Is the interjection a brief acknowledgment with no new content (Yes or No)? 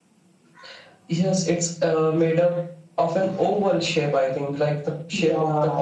No